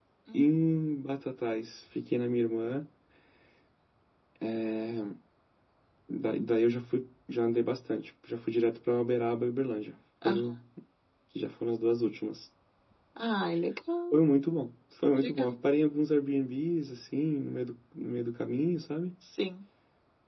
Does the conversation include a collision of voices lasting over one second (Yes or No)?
No